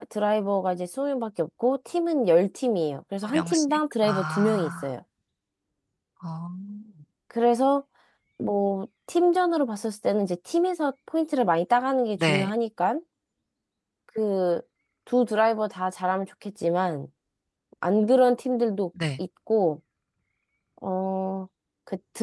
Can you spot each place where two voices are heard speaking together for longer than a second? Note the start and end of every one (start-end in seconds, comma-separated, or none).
3.2-4.9